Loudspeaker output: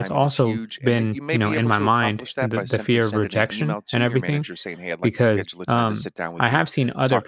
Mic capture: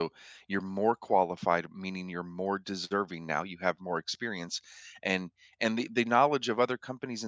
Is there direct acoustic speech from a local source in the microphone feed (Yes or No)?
Yes